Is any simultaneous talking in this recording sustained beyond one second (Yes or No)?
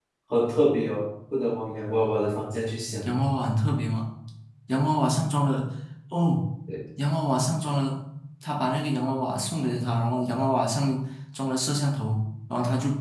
No